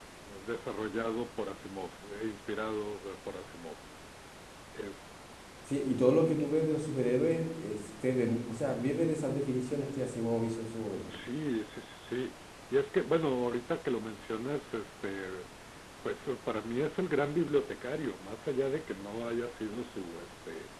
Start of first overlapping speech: none

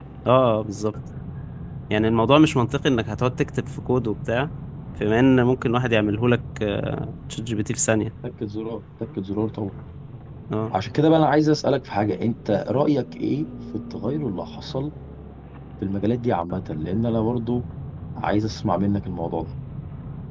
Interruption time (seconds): none

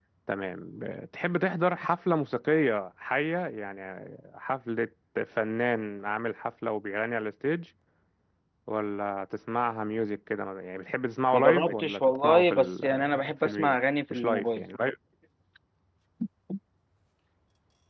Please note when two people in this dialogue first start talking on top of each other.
11.3 s

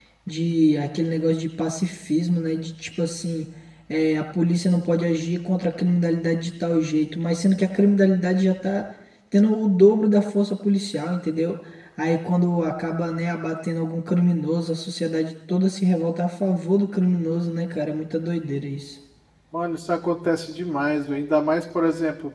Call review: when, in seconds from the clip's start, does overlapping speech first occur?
none

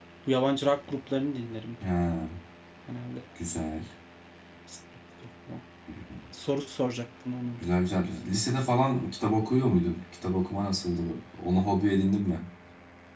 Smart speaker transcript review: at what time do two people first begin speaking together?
none

